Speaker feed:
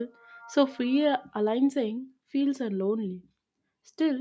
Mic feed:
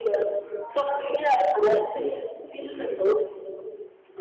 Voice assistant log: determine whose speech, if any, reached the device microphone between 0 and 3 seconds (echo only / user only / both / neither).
echo only